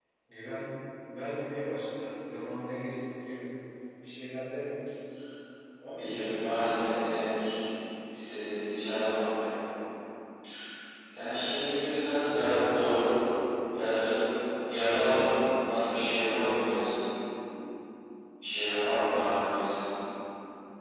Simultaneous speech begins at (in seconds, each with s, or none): 6.0 s